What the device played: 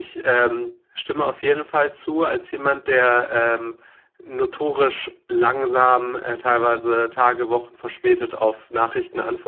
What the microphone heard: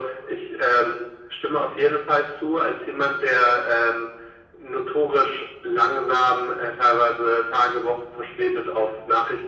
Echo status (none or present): present